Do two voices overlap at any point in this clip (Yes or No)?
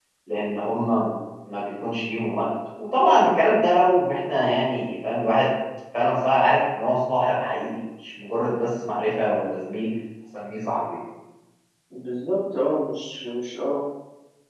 No